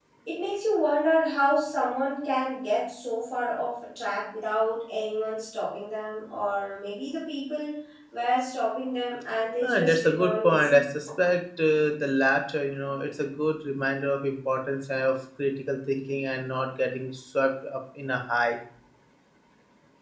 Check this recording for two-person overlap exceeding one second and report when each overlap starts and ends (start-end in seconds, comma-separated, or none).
9.6-10.8